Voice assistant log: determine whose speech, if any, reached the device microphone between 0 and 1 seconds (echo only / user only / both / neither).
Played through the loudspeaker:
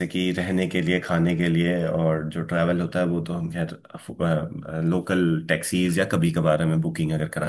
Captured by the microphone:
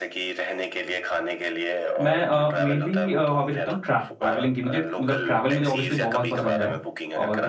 echo only